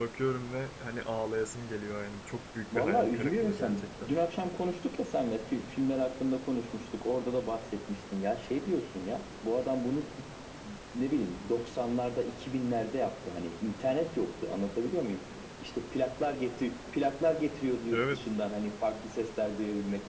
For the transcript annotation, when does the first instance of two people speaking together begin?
2.8 s

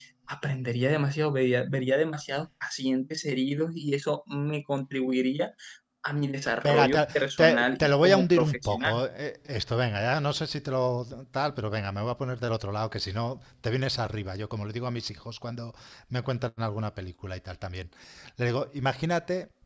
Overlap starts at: 6.6 s

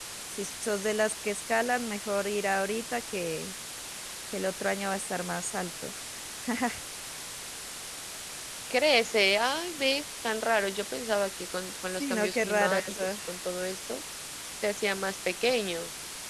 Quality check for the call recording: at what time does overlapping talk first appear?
11.9 s

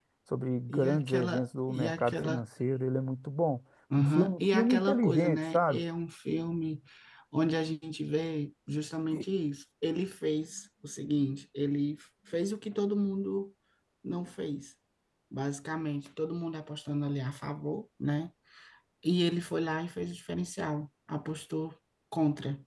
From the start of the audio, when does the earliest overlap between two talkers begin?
0.7 s

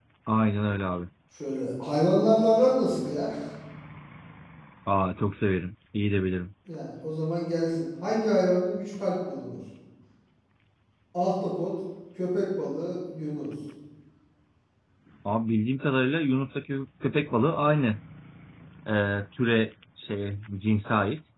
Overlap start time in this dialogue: none

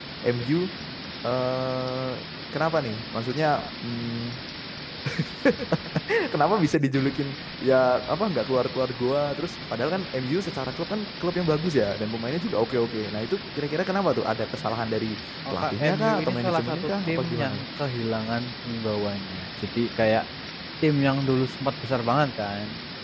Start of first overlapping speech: 15.4 s

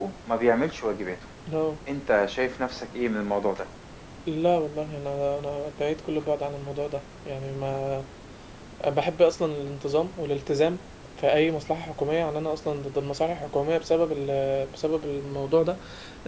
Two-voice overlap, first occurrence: none

